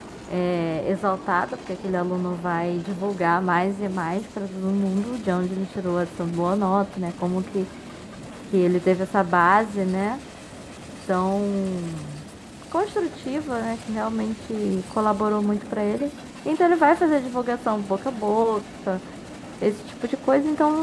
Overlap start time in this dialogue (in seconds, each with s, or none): none